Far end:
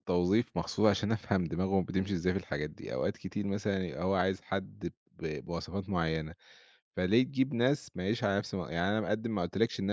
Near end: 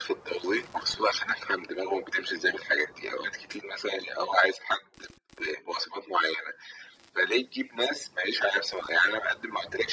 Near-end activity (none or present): none